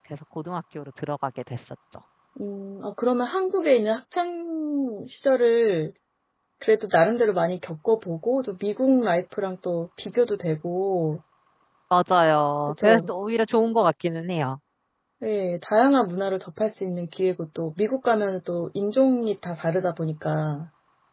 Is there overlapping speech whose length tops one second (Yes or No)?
No